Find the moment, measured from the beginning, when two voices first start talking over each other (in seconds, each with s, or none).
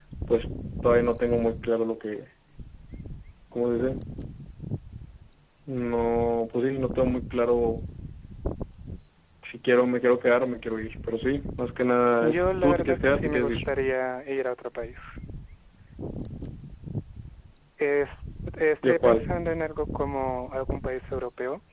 12.2 s